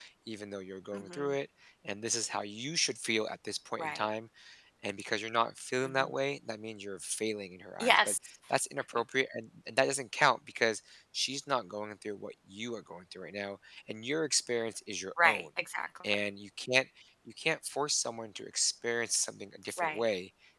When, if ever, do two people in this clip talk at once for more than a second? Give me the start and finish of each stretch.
none

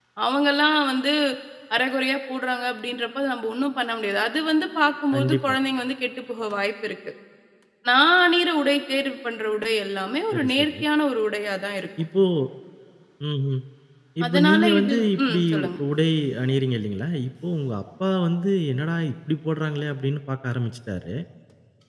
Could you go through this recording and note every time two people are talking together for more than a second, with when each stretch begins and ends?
14.2-15.7

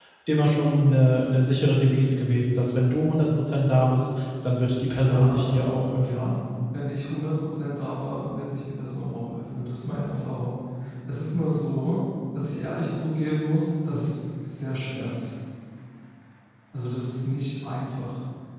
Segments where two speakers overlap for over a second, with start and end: 5.0-6.3

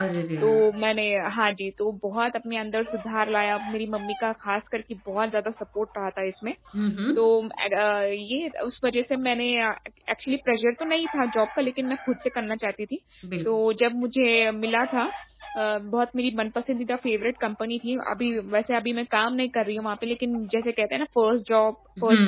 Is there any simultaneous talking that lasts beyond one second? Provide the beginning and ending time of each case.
none

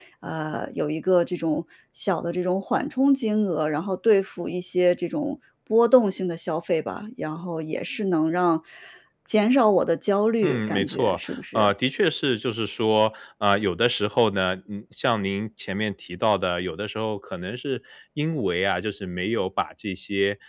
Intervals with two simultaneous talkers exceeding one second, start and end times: 10.4-11.7

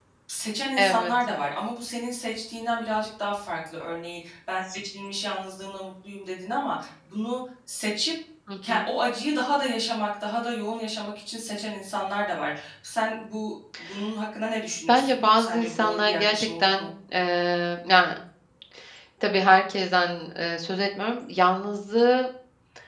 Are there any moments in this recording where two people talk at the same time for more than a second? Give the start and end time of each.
14.9-16.9

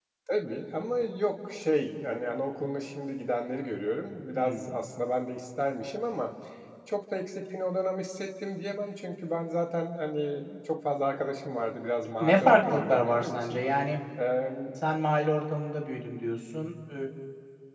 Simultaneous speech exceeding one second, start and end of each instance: 12.2-13.6

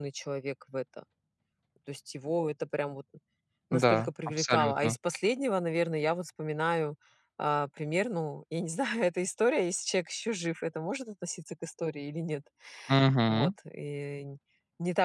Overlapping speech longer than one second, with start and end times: 3.7-5.0

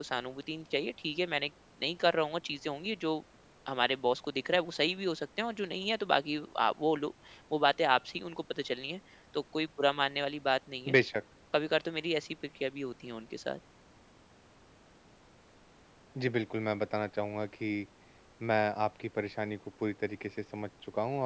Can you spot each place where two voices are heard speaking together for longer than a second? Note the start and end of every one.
none

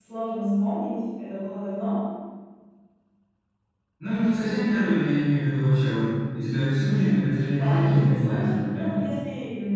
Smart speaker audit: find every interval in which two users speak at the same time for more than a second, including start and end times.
7.6-8.9

